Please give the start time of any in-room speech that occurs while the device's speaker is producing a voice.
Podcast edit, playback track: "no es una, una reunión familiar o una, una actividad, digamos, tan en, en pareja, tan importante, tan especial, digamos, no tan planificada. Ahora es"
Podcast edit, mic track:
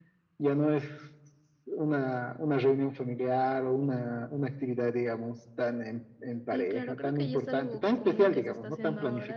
6.5 s

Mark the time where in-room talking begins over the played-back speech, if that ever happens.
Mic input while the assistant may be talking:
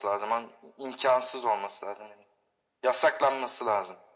none

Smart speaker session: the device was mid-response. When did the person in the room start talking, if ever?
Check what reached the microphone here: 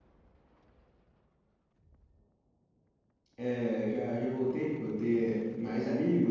3.4 s

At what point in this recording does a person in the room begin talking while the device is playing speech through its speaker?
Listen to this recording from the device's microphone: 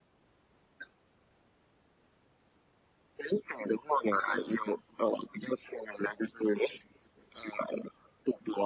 none

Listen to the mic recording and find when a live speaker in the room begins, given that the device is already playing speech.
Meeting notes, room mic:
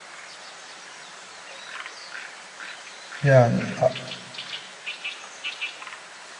3.2 s

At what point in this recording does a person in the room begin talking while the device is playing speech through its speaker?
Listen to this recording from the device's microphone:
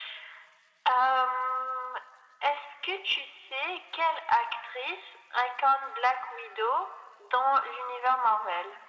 none

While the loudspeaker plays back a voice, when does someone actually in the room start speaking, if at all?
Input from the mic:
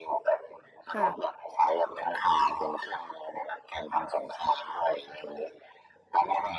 0.9 s

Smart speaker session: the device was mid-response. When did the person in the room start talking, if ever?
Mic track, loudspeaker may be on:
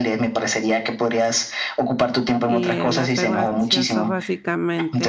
2.4 s

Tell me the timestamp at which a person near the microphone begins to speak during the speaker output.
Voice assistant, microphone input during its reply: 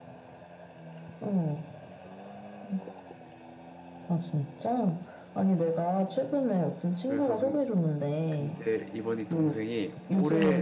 7.0 s

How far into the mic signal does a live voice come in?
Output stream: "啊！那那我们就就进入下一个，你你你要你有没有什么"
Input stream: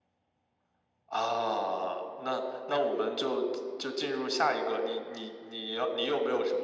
none

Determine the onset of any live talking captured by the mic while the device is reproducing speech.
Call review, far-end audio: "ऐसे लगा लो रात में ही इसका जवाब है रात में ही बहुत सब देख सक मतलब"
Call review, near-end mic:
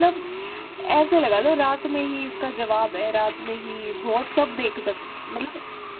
none

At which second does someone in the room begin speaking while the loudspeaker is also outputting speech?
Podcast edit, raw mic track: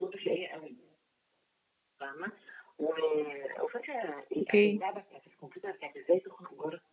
4.4 s

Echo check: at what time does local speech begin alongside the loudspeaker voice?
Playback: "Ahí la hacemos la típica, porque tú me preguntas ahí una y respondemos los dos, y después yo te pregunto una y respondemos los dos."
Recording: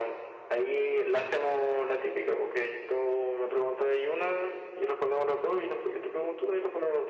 none

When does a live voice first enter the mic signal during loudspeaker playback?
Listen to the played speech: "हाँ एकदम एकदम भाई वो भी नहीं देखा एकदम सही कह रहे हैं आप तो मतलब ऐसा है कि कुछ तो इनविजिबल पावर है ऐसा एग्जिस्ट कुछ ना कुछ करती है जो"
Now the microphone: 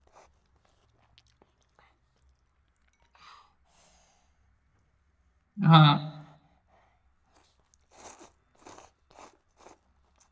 5.7 s

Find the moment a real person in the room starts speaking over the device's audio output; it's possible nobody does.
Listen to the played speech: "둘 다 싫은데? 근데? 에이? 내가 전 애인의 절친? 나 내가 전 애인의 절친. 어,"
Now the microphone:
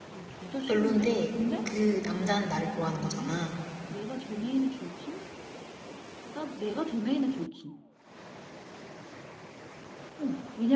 0.7 s

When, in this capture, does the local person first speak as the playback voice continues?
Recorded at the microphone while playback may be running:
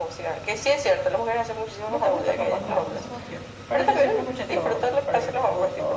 1.9 s

